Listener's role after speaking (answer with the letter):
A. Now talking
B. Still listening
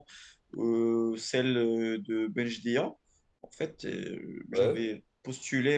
B